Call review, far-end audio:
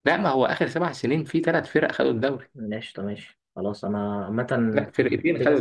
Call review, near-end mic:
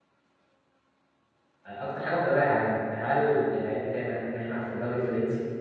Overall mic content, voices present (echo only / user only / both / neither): user only